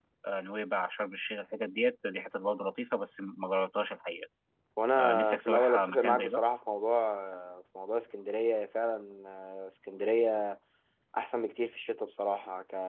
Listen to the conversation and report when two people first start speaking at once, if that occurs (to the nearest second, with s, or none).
5 s